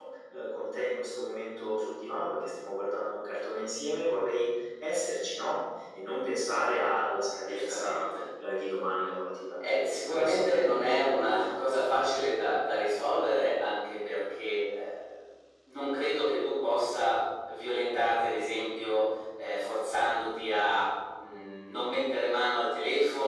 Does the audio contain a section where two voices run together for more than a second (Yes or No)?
Yes